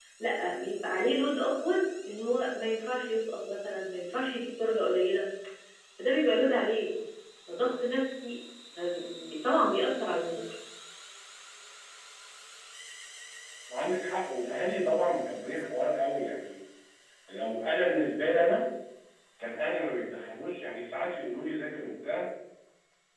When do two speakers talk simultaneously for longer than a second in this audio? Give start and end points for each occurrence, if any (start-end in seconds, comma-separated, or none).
none